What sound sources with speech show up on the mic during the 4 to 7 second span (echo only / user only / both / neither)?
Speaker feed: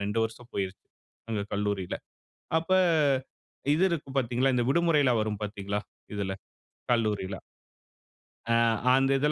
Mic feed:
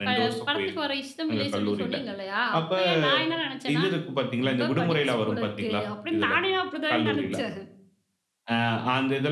both